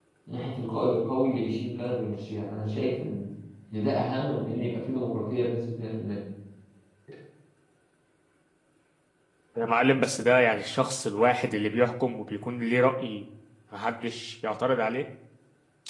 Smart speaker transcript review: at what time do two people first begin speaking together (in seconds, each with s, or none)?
none